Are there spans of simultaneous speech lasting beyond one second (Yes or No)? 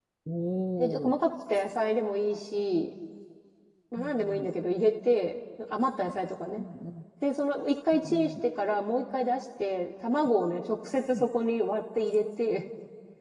No